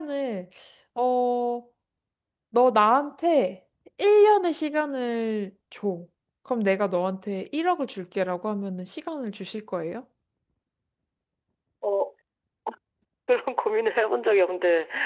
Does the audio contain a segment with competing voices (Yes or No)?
No